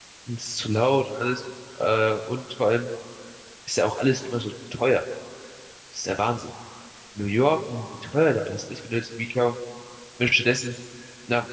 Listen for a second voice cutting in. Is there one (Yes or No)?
No